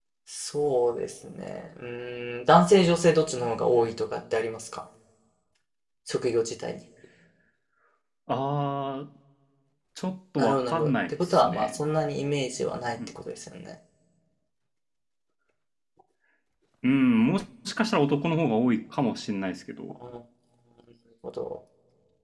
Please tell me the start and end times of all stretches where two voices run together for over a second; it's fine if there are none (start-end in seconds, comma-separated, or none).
10.4-11.8